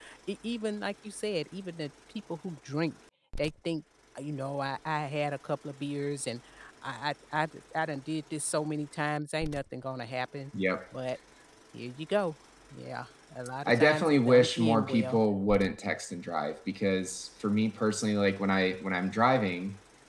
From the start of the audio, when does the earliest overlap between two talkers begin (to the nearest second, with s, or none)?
14 s